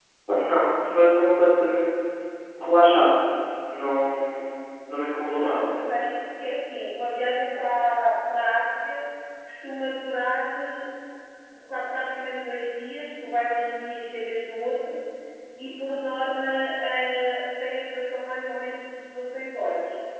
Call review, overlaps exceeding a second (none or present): none